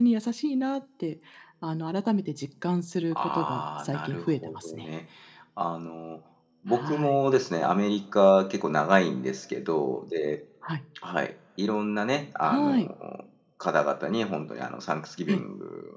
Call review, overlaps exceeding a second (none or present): present